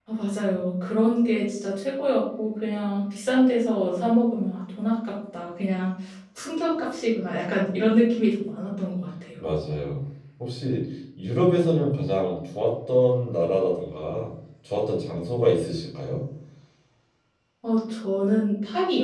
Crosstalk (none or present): none